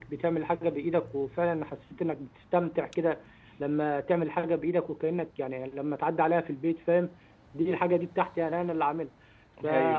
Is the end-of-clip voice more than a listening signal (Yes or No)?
No